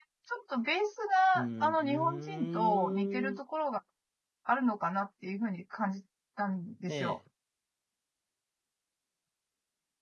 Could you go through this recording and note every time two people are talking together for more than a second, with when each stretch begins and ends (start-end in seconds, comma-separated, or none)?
1.3-3.4